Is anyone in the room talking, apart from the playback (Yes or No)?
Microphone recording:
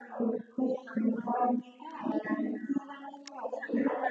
No